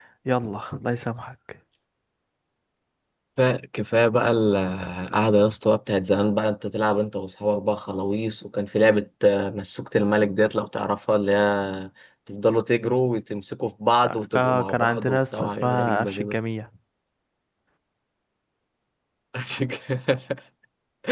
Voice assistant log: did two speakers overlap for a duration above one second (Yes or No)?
Yes